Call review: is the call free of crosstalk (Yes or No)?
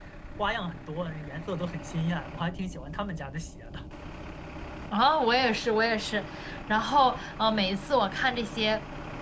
Yes